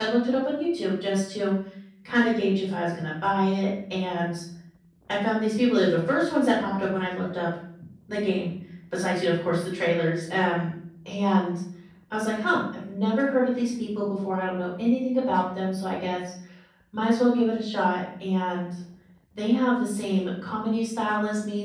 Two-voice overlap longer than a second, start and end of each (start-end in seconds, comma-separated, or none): none